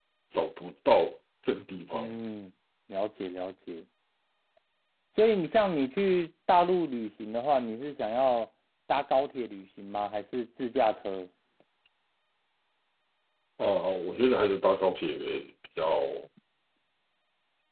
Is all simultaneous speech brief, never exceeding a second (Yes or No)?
Yes